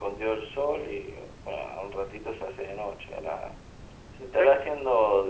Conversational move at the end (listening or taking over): listening